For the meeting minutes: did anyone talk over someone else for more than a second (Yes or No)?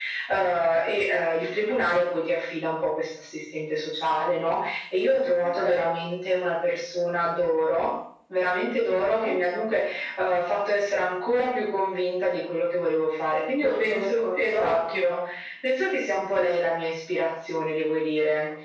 Yes